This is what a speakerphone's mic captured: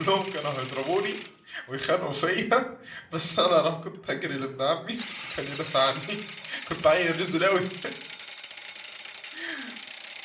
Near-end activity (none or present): present